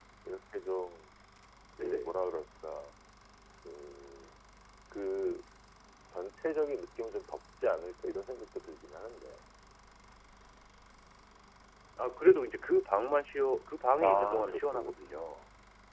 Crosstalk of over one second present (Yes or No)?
Yes